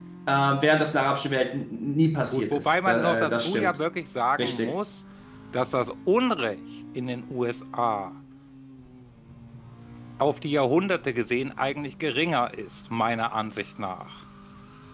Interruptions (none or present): present